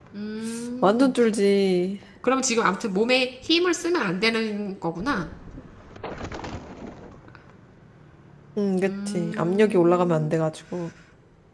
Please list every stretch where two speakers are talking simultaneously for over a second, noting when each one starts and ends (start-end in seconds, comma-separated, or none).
8.8-10.3